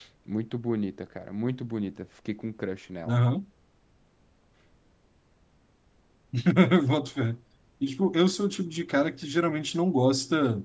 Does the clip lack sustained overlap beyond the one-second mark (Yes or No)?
Yes